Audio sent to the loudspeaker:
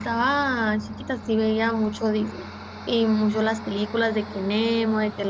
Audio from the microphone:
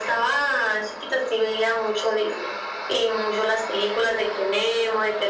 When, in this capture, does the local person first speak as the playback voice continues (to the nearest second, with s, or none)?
none